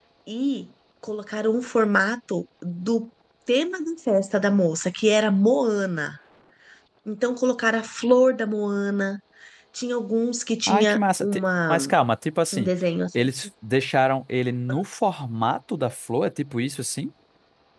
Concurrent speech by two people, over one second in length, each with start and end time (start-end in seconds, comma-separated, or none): 10.7-11.9